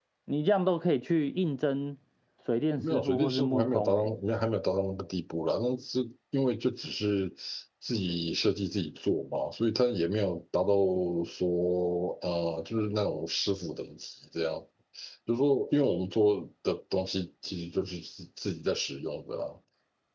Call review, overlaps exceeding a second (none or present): present